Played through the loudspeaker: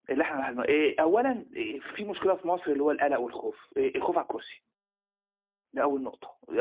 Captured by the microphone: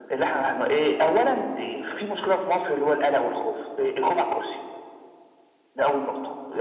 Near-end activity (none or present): none